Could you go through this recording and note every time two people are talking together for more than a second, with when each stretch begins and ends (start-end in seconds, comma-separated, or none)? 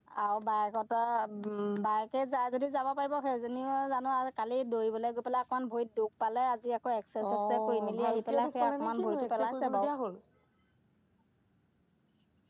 7.5-9.9